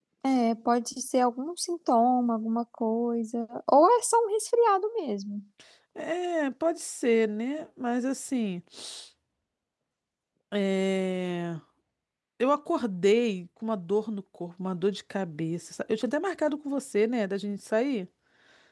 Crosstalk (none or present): none